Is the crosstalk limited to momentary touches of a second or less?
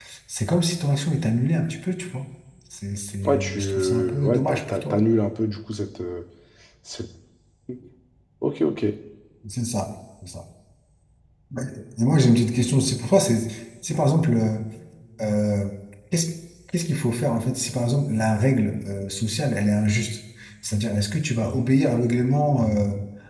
No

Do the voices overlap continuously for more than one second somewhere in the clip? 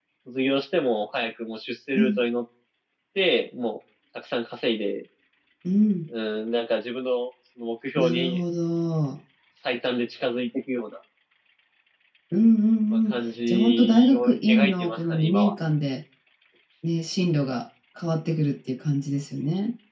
Yes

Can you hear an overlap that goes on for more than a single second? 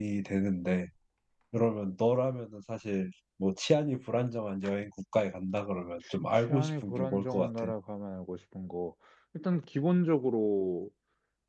Yes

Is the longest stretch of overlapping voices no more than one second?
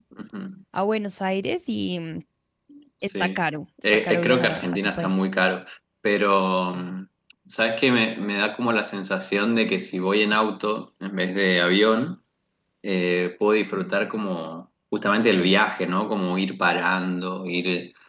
No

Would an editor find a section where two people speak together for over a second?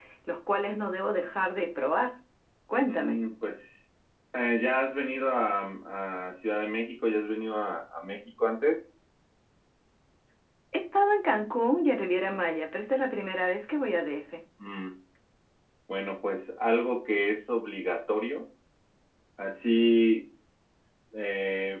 No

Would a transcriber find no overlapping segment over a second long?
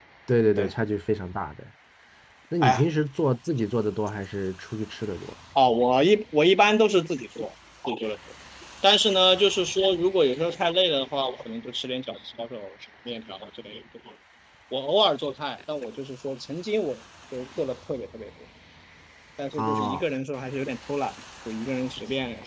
Yes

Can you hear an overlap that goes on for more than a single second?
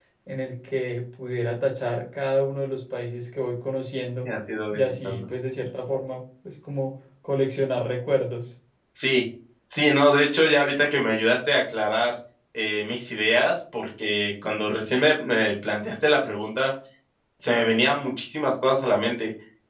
No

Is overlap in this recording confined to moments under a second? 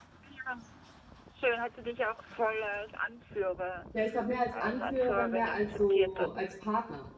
No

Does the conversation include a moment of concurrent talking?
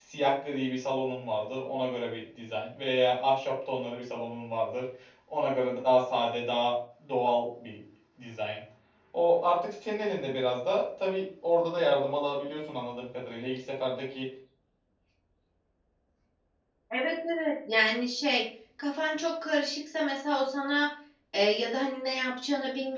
No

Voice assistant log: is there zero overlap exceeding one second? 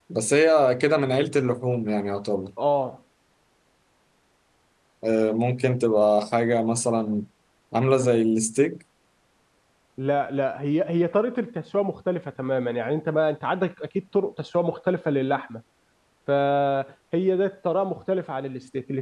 Yes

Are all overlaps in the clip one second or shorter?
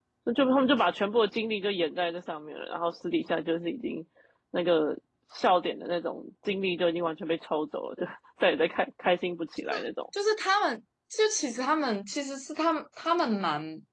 Yes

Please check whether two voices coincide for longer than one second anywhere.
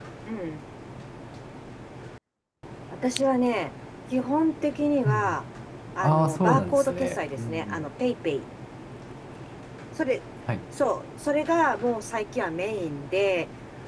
Yes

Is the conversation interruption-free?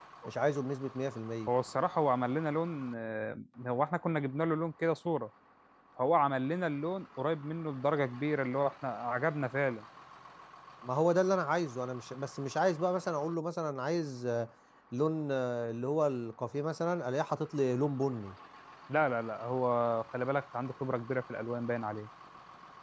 Yes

